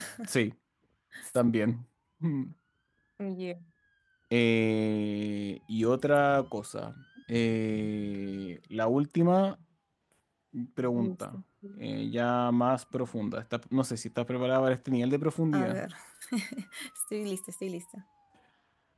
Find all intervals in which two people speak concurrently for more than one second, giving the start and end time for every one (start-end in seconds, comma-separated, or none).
none